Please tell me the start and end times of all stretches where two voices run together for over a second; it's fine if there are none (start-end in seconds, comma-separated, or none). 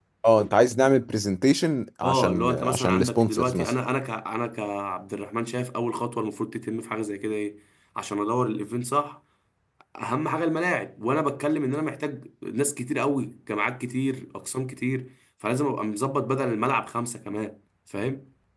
2.0-3.7